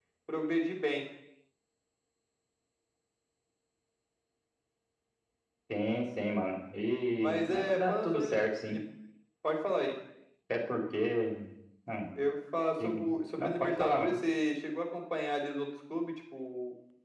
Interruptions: present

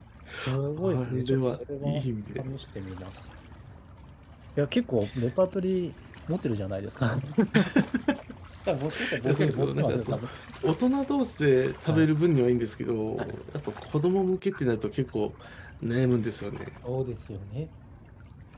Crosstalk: present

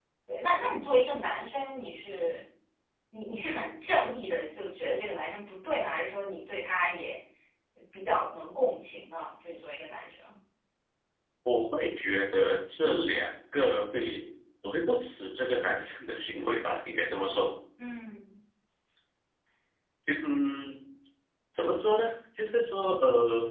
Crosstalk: none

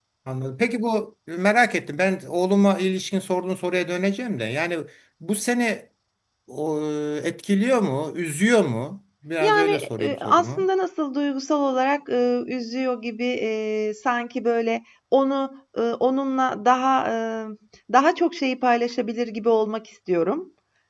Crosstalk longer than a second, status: present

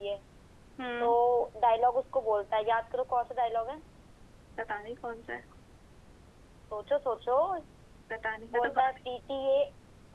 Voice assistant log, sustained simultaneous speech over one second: none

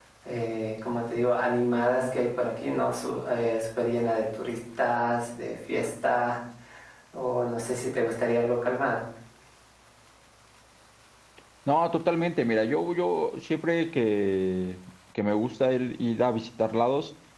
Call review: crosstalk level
none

